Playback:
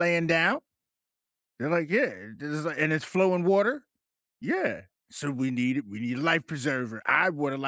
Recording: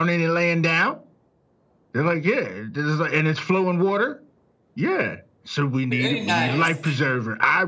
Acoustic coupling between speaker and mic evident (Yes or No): Yes